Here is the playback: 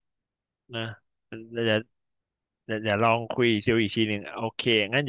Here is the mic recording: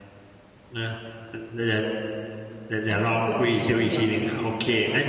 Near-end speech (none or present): present